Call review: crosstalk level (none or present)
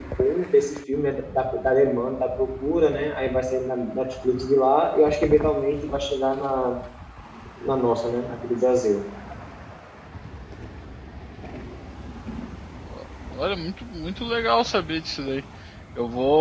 none